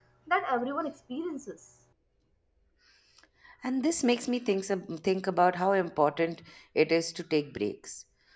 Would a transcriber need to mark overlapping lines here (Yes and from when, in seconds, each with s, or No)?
No